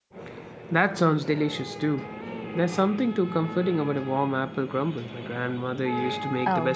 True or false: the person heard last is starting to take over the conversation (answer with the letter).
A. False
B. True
B